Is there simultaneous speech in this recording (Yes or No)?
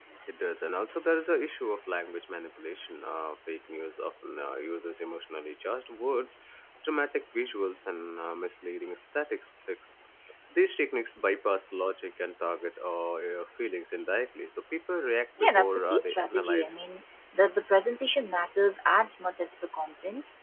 Yes